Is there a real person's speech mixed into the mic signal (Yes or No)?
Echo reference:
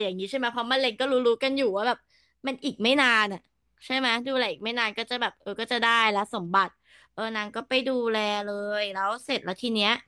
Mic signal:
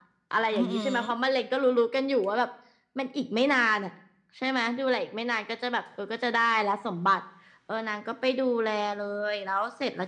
Yes